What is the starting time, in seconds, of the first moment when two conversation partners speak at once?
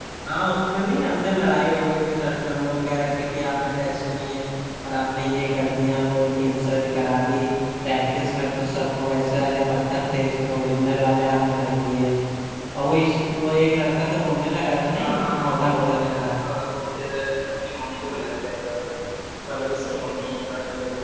15 s

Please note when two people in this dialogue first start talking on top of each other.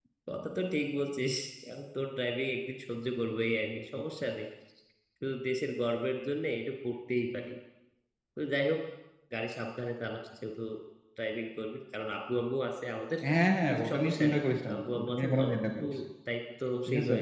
14 s

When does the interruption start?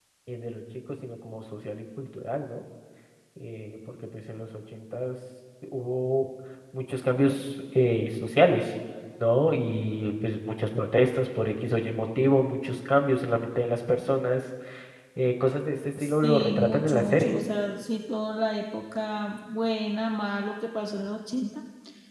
16 s

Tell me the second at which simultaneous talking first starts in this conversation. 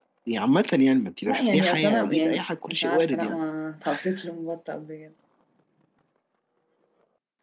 1 s

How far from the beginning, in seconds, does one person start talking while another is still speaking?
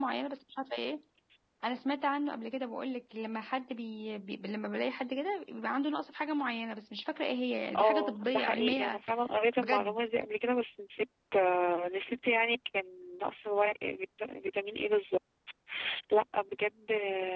8 s

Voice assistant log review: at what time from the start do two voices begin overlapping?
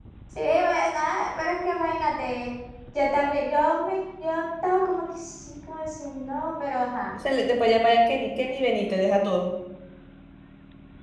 none

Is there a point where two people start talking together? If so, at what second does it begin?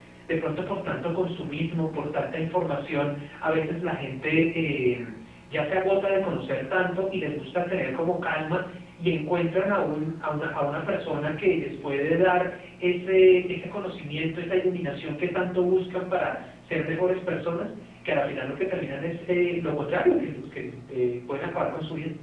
none

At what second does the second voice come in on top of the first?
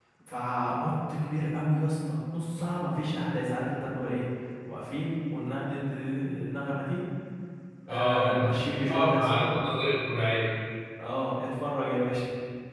8 s

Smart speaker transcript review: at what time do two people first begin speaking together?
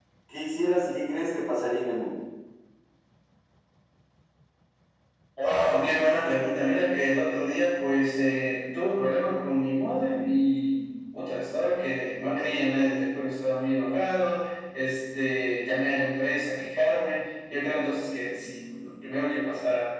none

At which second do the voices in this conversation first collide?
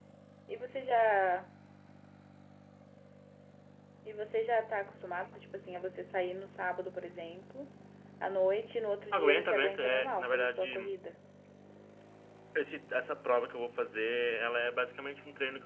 9 s

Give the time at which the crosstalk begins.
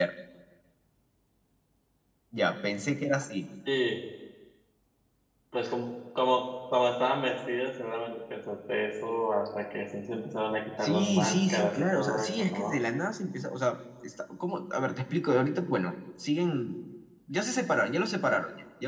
11 s

